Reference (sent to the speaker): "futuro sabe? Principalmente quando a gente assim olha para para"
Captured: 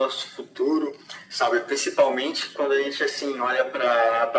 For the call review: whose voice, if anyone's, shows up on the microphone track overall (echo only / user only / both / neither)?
echo only